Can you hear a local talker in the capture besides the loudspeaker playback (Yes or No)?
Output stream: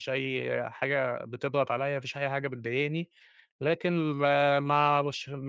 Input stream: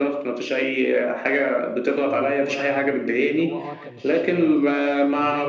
Yes